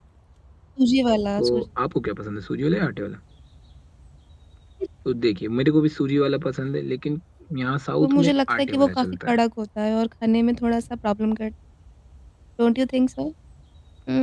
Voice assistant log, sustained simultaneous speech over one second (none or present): present